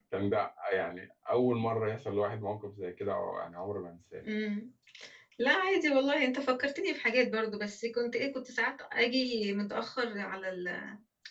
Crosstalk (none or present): none